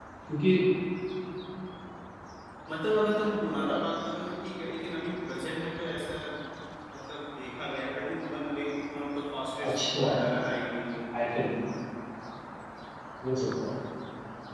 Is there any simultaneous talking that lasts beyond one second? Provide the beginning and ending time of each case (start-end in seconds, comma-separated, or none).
none